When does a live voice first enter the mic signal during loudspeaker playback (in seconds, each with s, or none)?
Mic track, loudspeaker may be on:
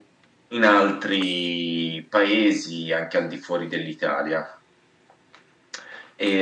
none